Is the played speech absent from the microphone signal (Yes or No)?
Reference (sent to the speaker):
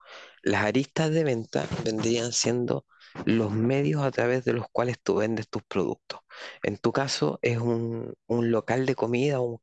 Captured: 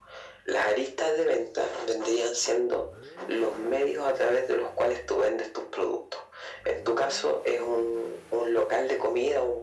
No